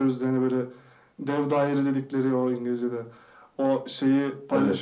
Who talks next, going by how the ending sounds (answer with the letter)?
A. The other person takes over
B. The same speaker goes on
B